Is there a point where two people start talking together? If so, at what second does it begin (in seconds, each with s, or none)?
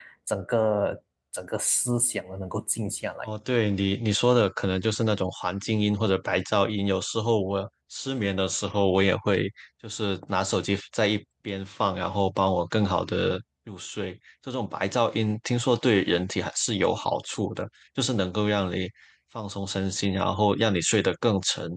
none